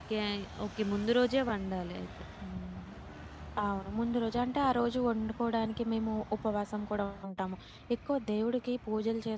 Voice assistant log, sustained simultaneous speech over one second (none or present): none